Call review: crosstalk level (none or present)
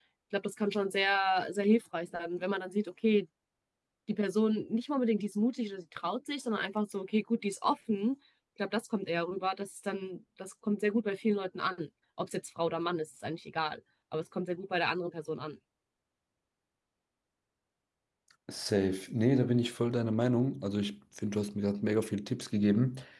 none